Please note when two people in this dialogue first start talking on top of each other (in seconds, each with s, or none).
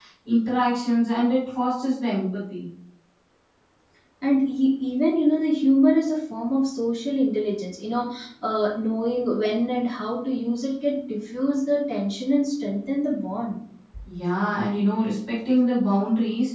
none